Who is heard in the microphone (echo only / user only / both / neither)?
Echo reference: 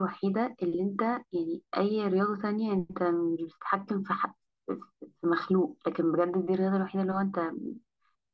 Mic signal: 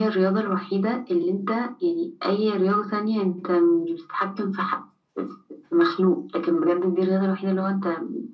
echo only